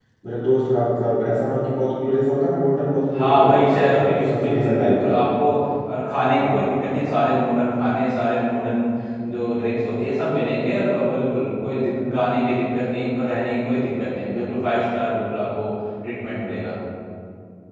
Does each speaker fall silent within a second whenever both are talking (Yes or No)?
No